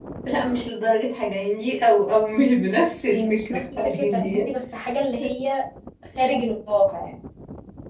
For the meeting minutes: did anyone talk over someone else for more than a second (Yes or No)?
Yes